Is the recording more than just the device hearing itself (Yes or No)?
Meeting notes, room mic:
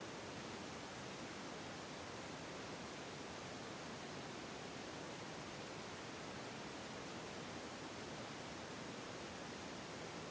No